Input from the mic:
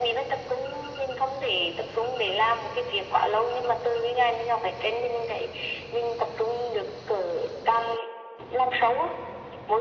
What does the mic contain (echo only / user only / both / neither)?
echo only